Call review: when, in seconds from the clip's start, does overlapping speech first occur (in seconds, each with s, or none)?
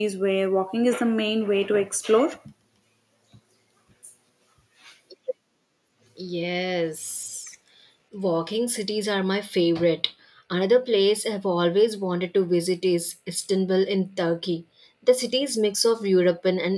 none